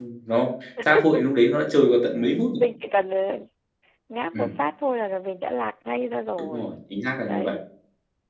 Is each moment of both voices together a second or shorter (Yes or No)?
Yes